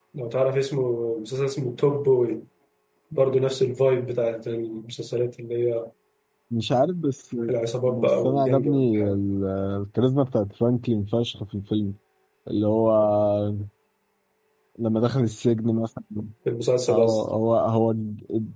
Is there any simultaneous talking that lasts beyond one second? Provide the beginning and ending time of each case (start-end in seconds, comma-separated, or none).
7.8-9.2